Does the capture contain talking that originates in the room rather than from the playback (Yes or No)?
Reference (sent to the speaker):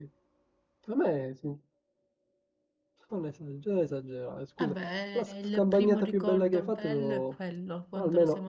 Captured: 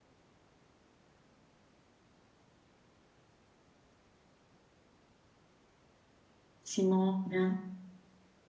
Yes